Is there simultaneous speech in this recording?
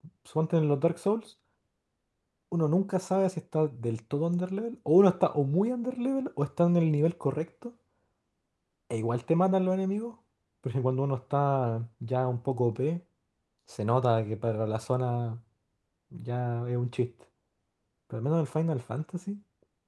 No

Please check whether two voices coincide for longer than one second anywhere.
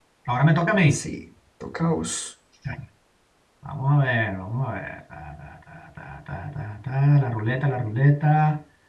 No

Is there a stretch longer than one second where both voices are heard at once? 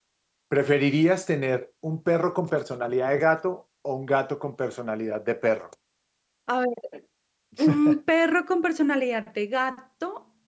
No

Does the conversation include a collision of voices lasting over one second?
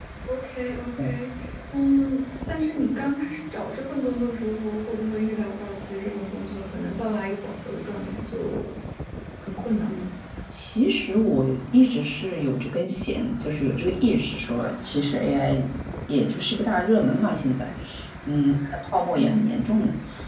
No

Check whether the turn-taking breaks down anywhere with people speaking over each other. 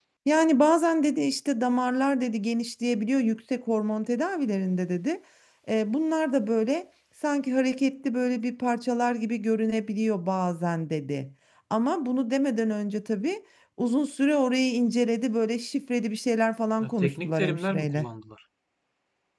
Yes, from 16.8 s

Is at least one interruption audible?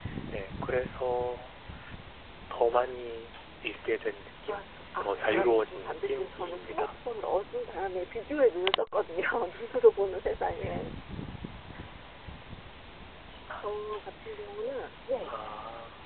Yes, from 5.0 s

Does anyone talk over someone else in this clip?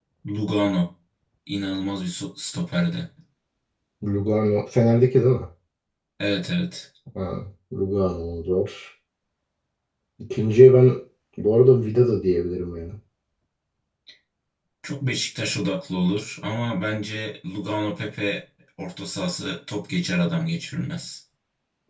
No

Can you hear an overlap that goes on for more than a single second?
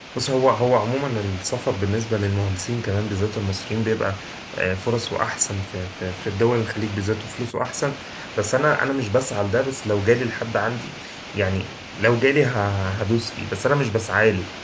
No

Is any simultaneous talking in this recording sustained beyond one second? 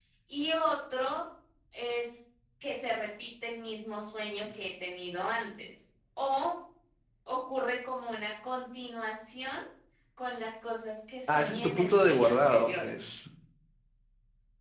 Yes, from 11.3 s

